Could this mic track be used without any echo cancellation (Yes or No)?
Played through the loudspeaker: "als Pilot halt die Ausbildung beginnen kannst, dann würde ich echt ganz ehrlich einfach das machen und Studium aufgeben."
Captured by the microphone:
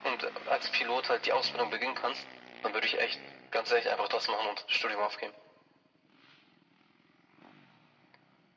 No